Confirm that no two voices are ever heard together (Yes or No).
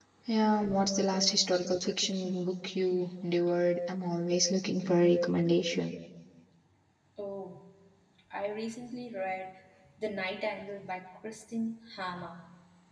Yes